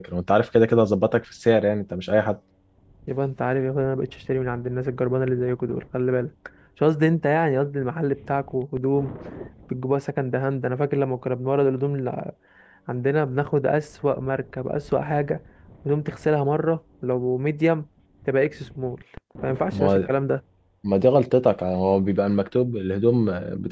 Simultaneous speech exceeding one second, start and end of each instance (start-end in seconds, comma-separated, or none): none